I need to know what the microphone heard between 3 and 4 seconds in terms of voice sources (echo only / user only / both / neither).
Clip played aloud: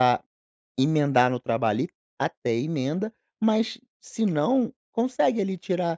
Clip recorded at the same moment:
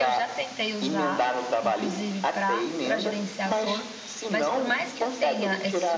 both